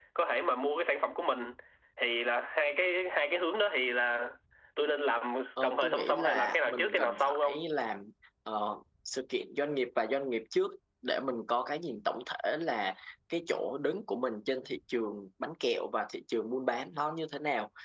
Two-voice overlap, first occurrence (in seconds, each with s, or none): 5.6 s